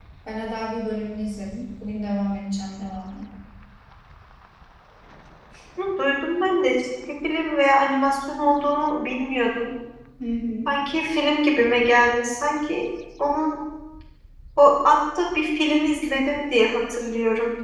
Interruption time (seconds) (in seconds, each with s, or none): none